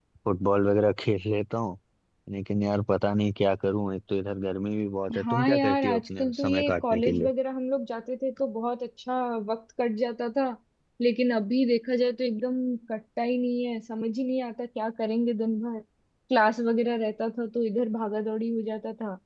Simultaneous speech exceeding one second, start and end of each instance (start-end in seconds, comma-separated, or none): 5.2-7.3